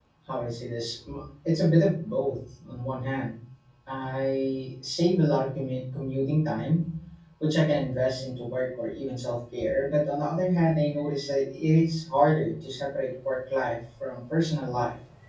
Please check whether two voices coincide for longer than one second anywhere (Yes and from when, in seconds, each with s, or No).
No